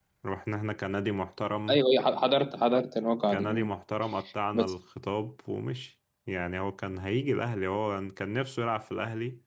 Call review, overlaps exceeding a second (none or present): none